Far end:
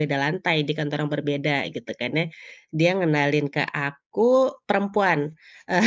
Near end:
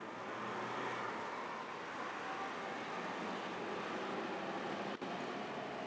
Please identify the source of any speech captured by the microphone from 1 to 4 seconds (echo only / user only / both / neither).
neither